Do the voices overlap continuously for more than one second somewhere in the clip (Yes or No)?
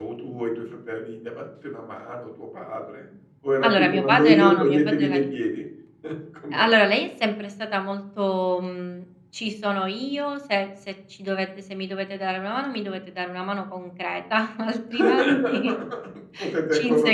Yes